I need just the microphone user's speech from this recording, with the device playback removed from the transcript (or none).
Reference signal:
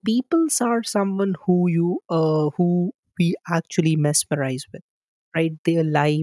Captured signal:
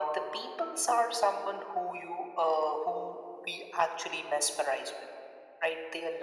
none